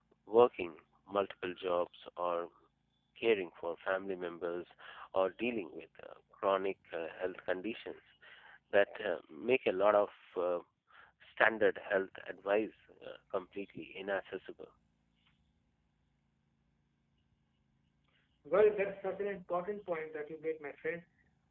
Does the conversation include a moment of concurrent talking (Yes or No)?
No